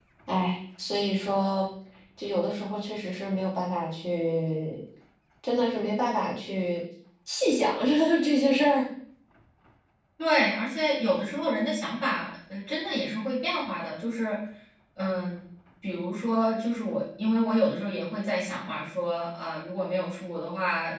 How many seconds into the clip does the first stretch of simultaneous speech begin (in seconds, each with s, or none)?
none